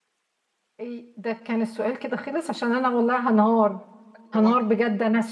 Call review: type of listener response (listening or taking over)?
listening